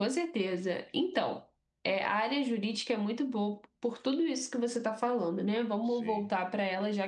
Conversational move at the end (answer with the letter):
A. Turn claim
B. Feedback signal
B